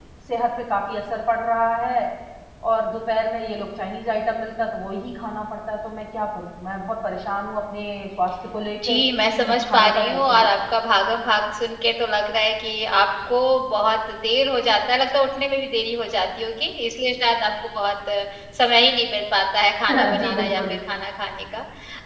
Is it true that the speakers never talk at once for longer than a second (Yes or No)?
No